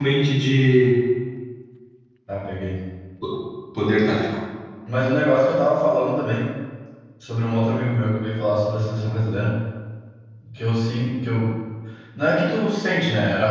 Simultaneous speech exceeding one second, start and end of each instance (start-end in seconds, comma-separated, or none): none